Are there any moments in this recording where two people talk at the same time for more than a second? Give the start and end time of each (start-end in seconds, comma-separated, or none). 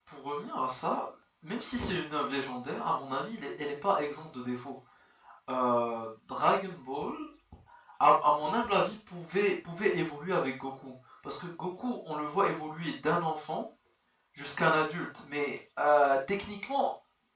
none